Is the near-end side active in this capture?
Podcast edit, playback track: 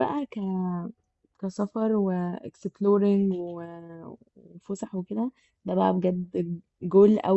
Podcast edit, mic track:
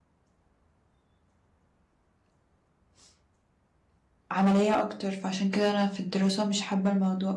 Yes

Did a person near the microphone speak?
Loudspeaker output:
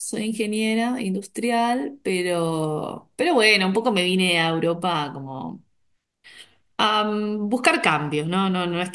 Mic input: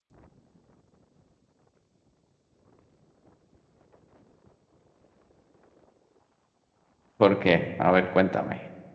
Yes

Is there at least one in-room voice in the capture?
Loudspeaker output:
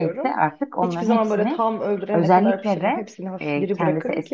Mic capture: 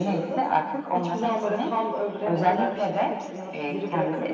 No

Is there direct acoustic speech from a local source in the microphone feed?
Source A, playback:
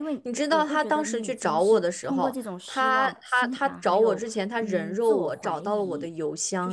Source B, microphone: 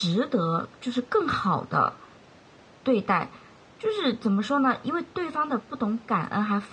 Yes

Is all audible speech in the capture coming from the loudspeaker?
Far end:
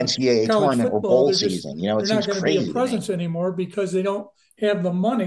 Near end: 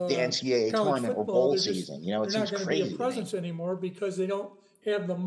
Yes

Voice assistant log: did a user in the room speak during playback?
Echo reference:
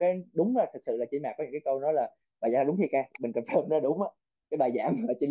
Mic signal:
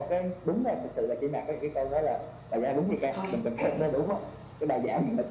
Yes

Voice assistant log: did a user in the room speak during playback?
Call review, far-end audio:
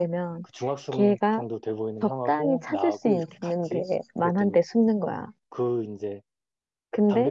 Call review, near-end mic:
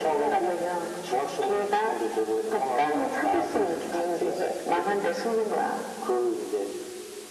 No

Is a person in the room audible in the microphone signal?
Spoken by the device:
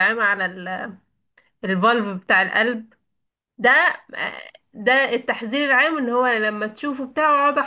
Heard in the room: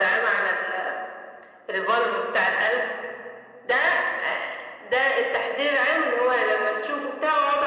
No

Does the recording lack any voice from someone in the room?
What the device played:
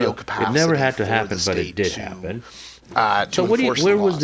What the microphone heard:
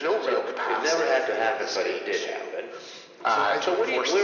No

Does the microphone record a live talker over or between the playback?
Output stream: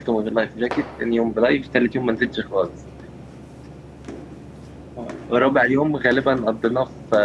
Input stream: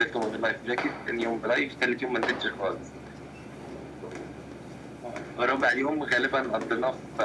No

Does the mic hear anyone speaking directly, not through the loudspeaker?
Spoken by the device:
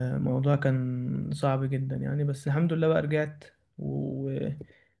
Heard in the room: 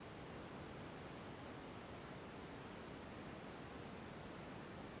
No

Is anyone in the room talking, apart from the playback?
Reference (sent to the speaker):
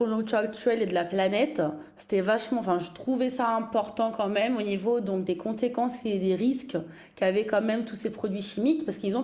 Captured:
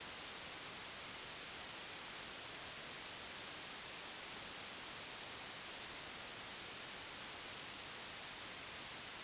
No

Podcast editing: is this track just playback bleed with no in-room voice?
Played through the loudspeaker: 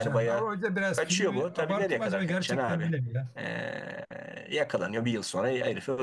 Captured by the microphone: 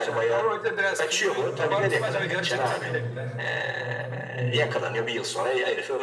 No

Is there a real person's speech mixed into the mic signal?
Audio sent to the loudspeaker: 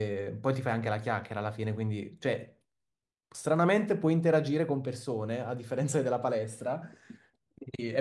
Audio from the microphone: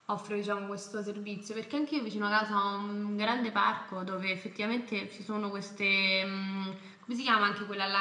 Yes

